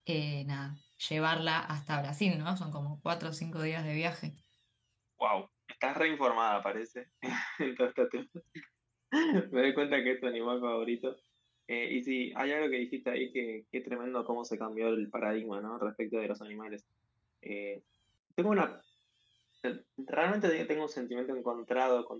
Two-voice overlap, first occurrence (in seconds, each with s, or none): none